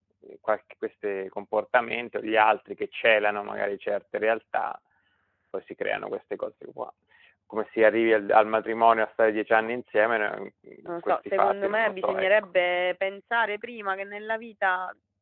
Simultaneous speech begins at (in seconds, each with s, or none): 10.9 s